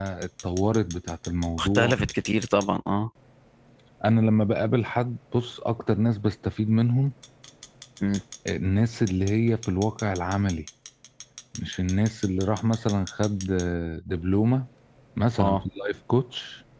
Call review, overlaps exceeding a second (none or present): none